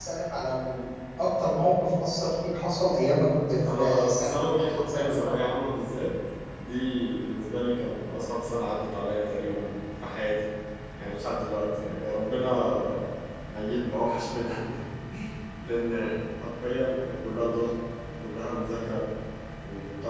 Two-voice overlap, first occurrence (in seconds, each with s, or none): 3.6 s